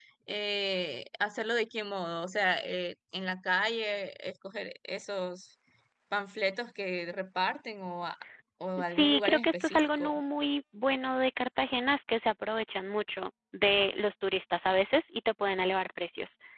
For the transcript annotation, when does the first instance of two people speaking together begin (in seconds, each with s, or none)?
8.8 s